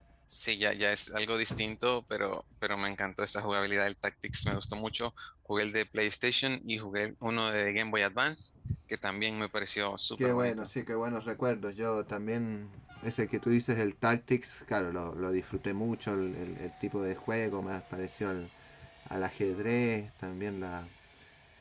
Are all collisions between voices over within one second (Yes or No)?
Yes